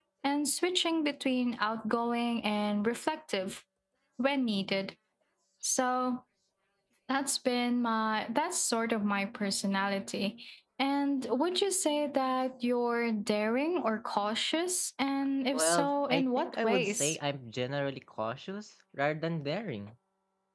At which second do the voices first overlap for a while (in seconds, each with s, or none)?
15.5 s